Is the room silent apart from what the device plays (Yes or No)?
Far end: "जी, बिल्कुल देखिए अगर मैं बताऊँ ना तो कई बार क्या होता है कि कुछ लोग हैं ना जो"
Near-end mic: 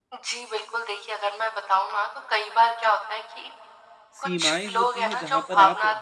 No